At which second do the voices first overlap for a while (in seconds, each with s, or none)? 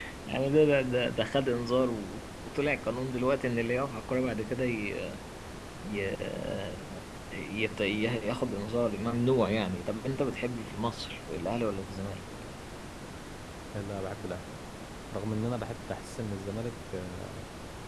none